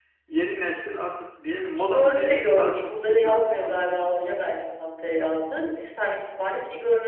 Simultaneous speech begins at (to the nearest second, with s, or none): 2 s